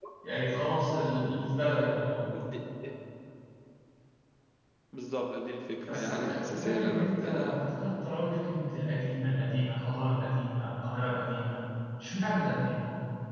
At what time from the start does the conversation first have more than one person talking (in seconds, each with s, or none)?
5.9 s